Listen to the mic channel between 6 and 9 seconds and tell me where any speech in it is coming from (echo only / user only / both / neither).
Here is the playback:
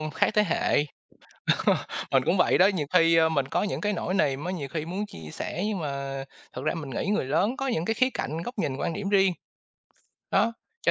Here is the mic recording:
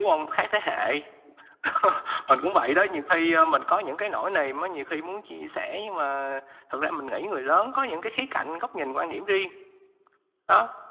echo only